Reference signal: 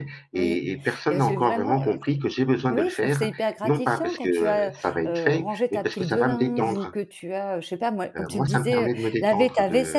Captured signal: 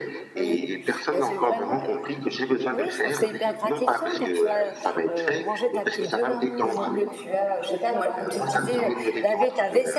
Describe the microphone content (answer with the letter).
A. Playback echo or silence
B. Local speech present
A